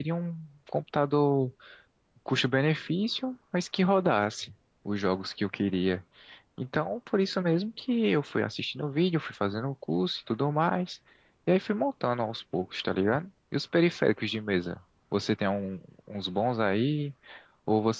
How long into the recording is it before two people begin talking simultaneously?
none

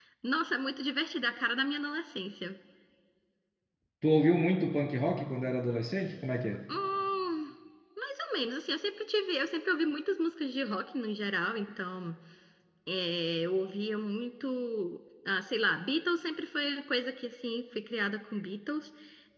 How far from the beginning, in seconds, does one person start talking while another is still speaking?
none

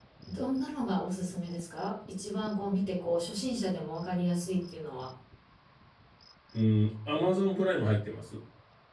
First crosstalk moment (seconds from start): none

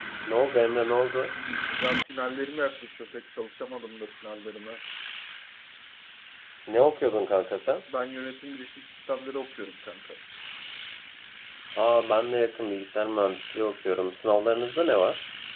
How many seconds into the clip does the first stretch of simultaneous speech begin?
none

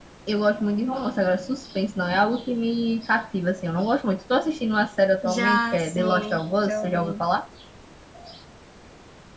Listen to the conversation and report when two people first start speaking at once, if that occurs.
5.2 s

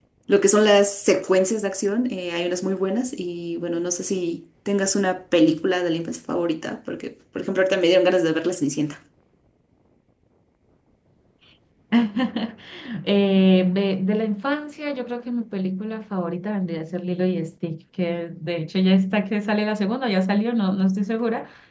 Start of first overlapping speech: none

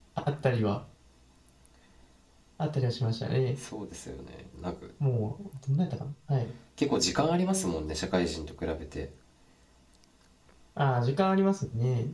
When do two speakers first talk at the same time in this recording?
none

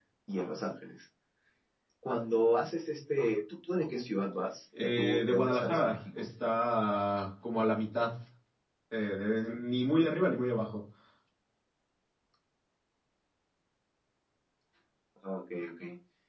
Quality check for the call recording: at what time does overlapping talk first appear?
4.7 s

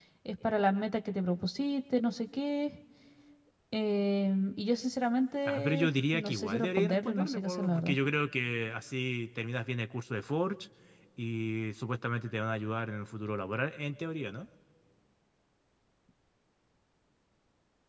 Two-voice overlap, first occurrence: 5.5 s

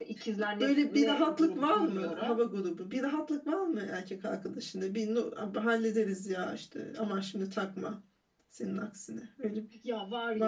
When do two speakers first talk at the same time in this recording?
0.6 s

